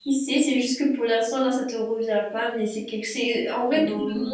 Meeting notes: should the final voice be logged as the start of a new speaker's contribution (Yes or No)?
No